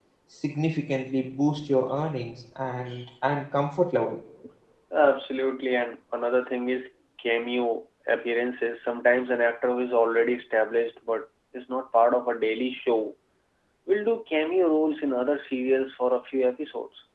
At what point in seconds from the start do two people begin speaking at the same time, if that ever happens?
none

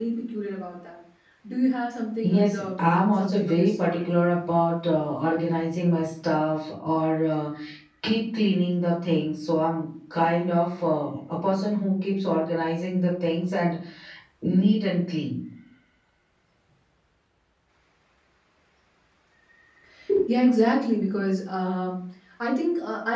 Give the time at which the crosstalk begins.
2.2 s

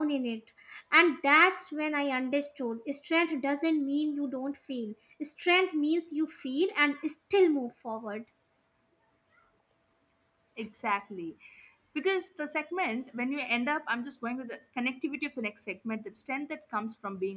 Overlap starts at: none

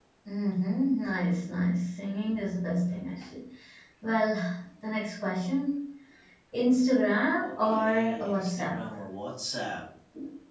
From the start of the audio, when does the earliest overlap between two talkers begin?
7.4 s

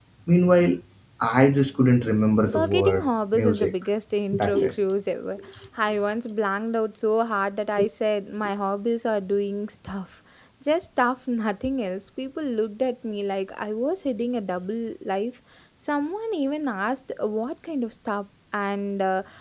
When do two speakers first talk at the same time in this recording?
2.5 s

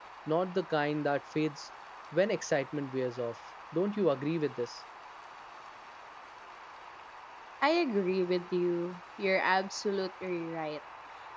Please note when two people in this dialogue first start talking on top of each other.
none

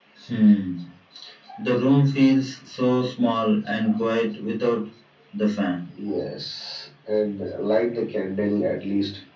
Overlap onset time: none

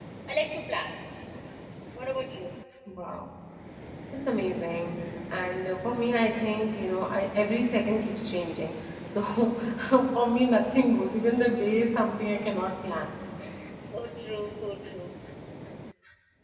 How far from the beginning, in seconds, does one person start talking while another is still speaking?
none

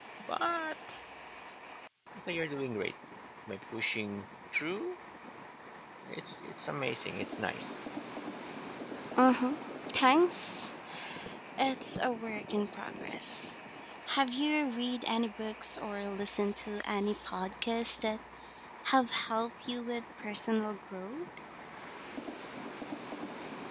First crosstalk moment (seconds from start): none

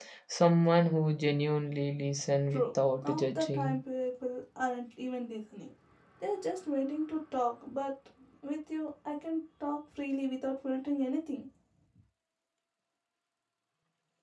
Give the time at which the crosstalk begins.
2.5 s

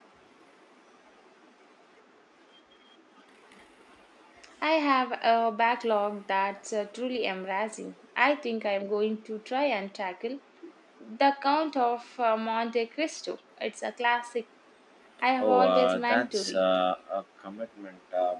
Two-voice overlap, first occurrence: 15.4 s

